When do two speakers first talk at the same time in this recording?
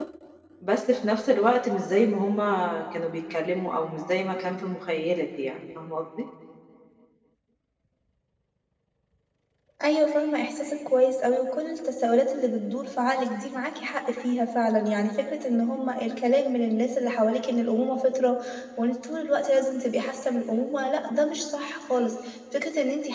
none

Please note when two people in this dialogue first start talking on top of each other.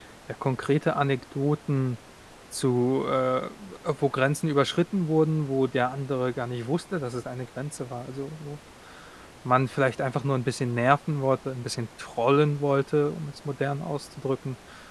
none

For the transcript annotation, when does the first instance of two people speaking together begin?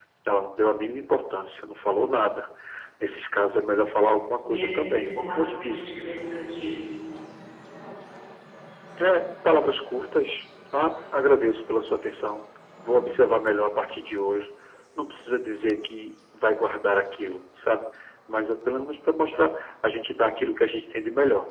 4.4 s

